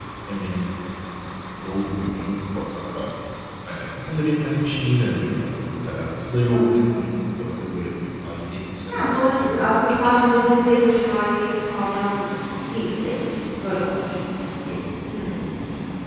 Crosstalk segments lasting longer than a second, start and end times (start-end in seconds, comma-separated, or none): 8.9-10.2